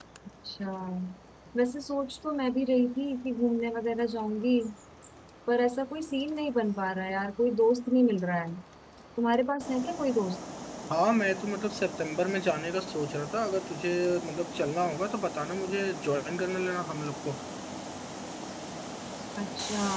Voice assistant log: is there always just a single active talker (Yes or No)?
Yes